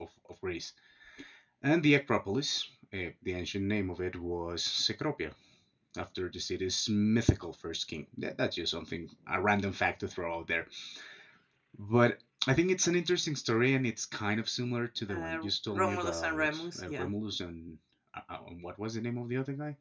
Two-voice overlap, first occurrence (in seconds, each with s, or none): 15.1 s